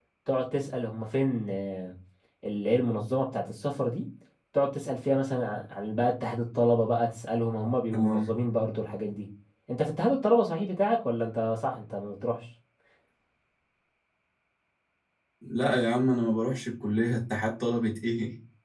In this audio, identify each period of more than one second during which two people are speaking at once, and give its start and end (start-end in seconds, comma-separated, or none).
none